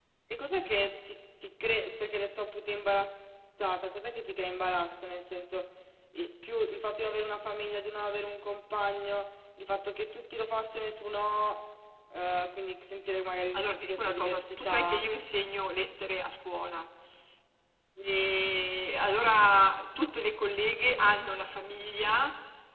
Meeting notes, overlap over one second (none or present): present